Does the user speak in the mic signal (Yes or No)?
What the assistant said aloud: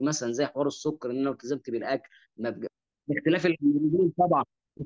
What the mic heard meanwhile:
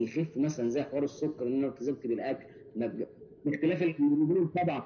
No